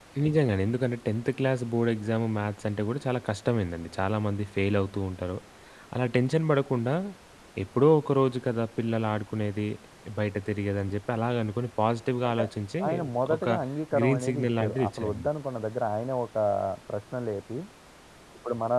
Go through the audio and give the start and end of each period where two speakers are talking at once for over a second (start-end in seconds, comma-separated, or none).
14.0-15.2